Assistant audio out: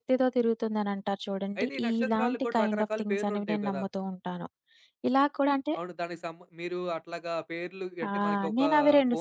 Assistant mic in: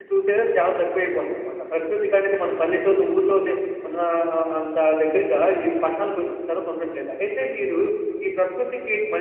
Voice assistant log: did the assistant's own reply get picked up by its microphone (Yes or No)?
No